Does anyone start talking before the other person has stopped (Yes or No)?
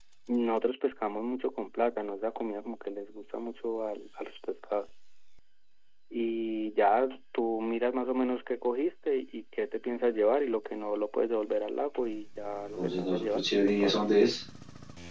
Yes